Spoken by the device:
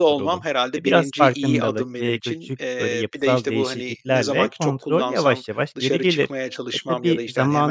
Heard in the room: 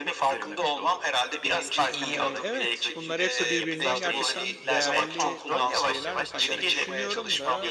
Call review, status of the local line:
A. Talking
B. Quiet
A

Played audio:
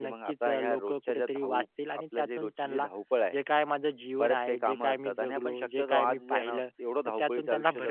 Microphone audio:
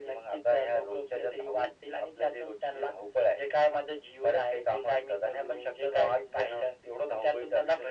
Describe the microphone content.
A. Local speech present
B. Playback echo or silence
B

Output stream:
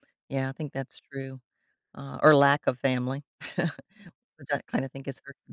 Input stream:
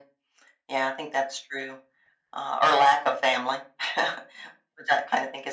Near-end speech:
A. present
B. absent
B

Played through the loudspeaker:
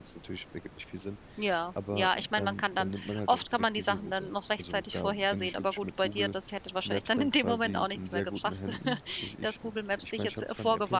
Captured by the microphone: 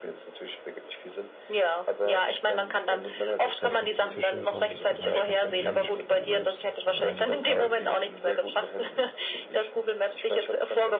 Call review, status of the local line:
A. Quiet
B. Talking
B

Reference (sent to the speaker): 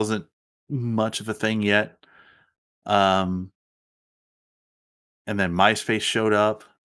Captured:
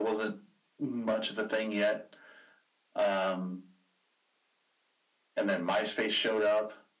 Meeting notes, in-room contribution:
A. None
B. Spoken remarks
A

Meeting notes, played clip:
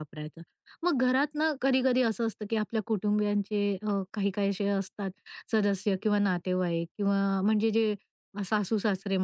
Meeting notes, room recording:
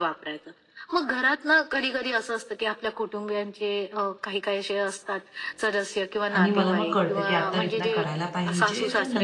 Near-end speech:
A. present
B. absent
A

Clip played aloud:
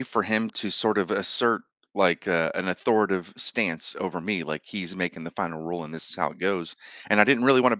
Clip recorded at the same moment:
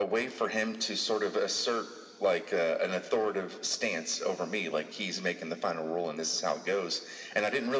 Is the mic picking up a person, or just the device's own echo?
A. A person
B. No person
B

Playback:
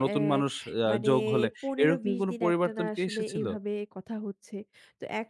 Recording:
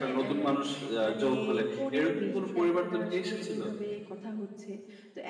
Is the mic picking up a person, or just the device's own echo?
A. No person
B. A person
A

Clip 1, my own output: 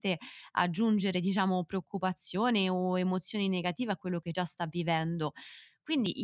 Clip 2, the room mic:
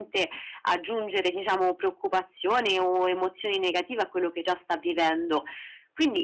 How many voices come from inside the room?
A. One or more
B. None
B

